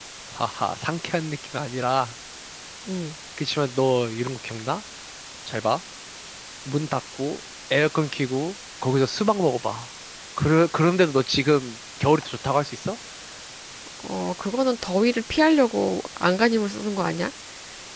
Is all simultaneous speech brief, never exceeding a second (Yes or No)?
Yes